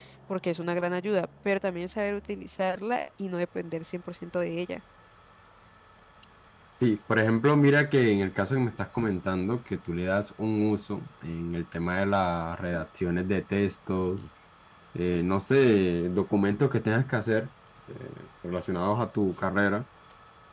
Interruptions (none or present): none